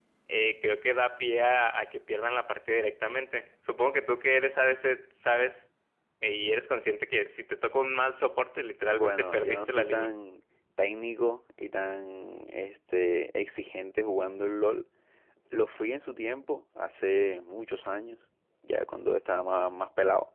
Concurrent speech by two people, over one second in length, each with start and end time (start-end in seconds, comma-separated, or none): 8.9-10.1